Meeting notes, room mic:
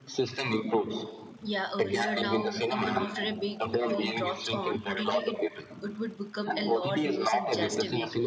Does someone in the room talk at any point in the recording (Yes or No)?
Yes